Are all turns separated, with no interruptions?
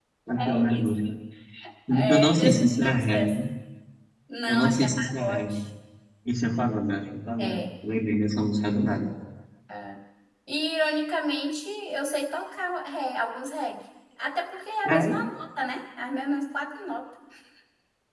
No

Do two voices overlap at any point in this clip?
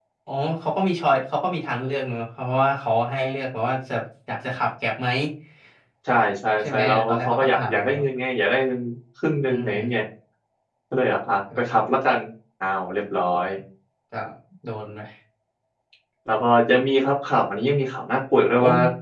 Yes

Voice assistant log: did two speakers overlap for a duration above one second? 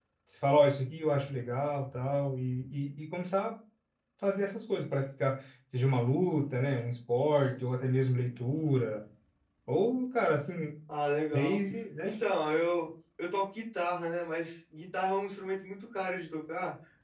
No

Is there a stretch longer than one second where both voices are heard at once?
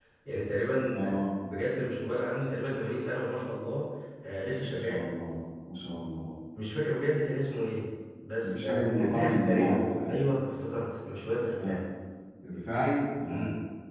Yes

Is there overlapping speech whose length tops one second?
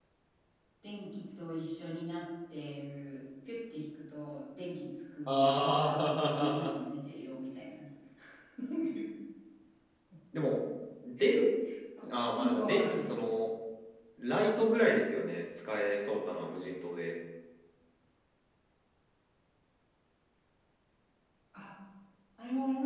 Yes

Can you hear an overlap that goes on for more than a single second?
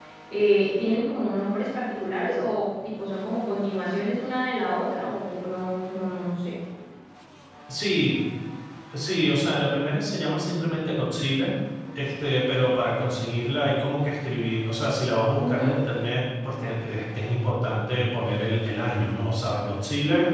No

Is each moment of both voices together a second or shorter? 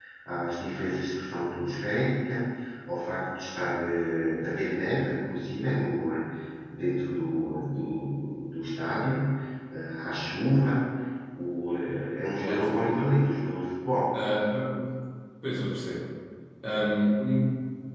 Yes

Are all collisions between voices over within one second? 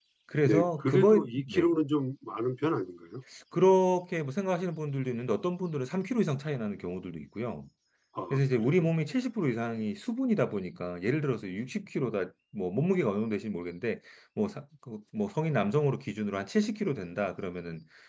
No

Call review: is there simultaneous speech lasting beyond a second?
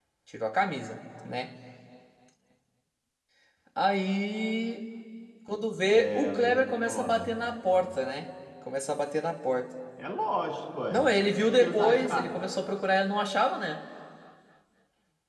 Yes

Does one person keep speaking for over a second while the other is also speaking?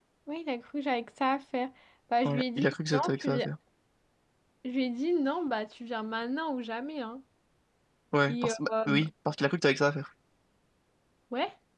Yes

